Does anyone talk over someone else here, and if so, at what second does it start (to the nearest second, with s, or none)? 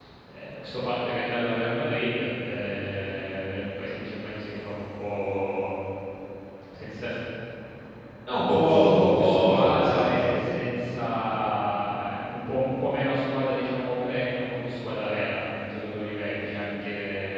8 s